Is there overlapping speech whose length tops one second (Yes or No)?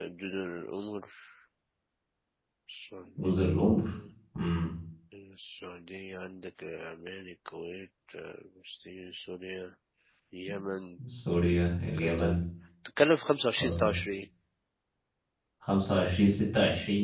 No